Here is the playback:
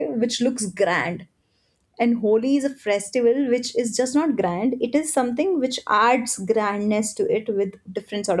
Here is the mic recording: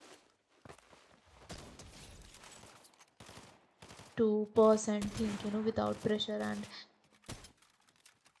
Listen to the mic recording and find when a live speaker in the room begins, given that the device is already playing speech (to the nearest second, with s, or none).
4 s